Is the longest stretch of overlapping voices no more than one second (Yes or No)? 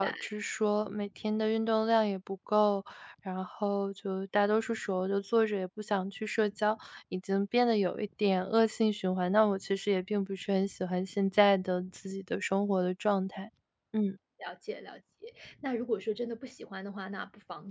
Yes